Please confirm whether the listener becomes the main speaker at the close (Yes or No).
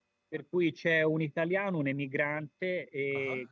No